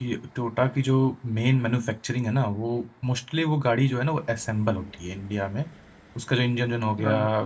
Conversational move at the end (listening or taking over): listening